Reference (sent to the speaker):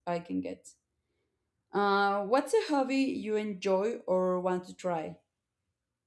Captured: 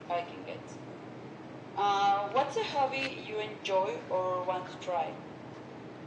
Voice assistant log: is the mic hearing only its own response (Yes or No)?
Yes